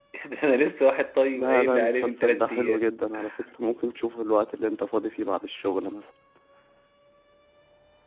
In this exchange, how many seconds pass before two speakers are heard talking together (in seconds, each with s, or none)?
1.3 s